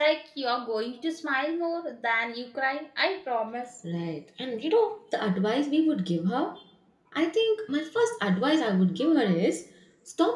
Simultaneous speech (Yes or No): No